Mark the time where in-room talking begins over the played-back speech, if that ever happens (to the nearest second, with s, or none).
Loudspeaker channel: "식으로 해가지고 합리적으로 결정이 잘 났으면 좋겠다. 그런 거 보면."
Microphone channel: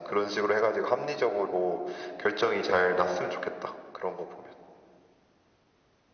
none